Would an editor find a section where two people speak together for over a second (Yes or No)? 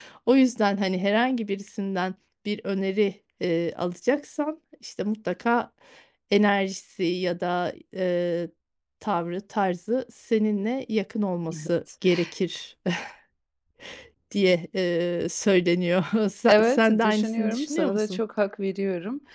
Yes